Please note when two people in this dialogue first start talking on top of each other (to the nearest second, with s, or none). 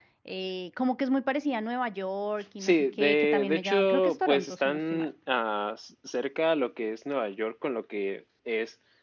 3 s